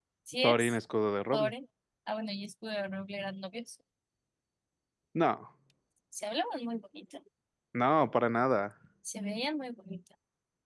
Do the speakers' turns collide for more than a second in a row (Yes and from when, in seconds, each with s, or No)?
No